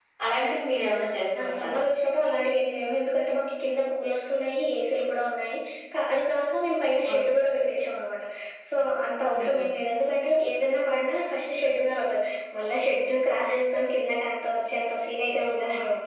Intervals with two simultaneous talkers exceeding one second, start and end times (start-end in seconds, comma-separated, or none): none